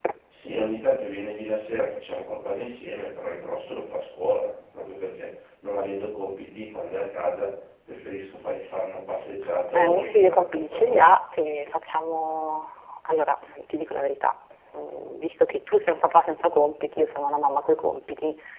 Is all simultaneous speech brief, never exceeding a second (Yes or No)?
No